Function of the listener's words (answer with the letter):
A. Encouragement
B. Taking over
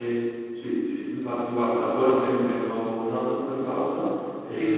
A